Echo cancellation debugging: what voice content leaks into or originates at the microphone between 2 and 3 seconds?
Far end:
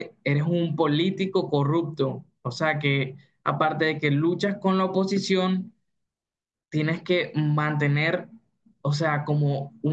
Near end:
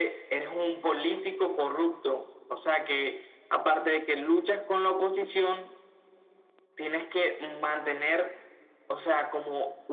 echo only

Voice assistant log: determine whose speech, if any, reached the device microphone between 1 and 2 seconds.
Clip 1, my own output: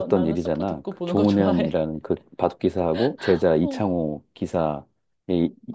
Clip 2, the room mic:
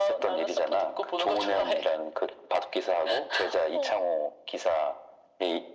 echo only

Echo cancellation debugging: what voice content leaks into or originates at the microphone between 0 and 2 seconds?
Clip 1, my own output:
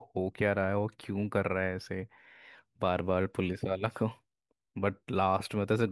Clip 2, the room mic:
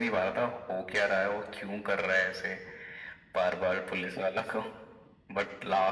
echo only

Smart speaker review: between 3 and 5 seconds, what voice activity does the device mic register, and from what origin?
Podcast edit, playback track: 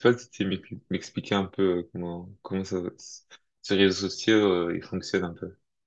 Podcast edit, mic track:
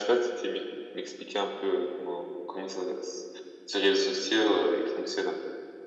echo only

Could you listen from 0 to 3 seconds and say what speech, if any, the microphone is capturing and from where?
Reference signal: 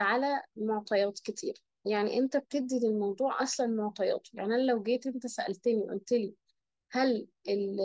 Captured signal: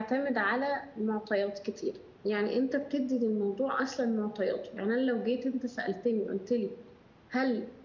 echo only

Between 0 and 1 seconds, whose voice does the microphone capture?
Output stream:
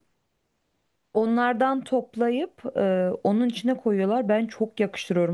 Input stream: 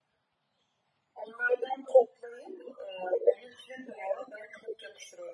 neither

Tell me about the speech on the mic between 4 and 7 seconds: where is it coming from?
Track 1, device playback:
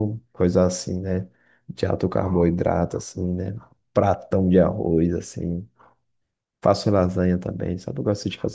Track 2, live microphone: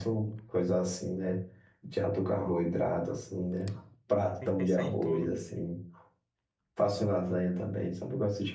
both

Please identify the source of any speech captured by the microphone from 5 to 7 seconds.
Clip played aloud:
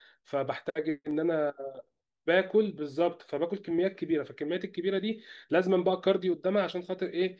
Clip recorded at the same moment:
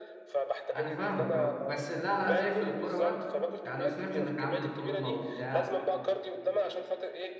both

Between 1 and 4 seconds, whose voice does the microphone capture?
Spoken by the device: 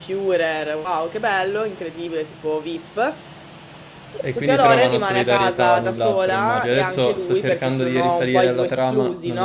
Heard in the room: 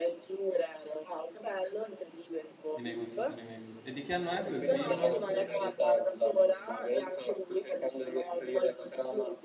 both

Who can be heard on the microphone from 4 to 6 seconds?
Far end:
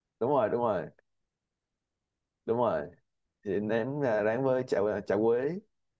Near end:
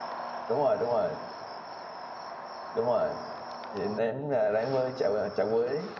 echo only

